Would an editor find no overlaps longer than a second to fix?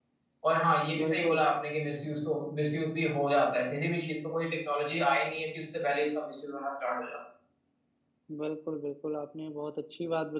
Yes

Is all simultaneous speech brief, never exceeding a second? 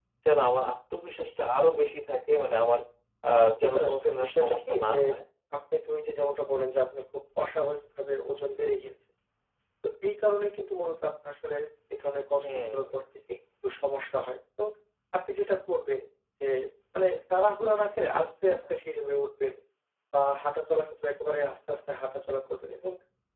No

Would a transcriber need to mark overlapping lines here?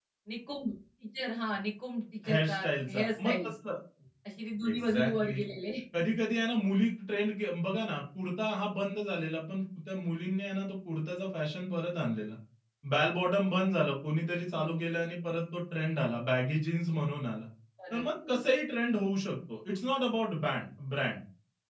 Yes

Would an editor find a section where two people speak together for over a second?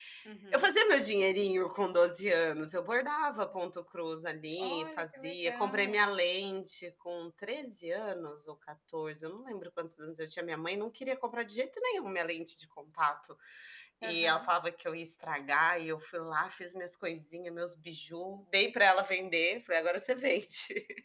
Yes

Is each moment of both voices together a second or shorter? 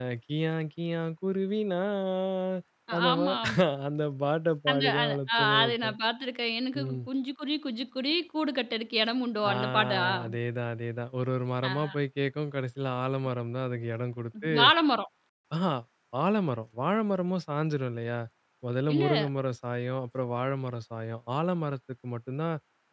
No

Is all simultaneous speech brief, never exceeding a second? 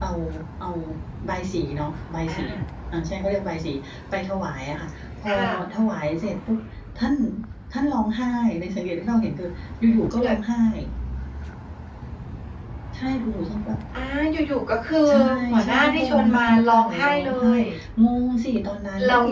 No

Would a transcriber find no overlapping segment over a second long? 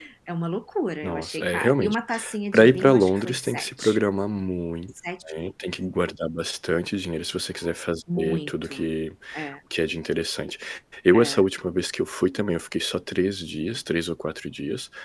No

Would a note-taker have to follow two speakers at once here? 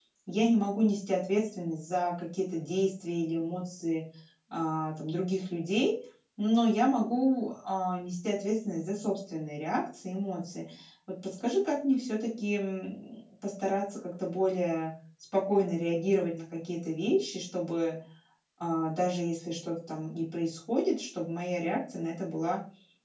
No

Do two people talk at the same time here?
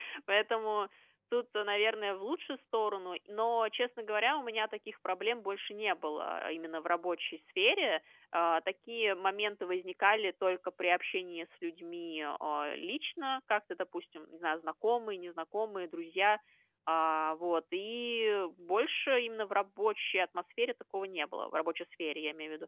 No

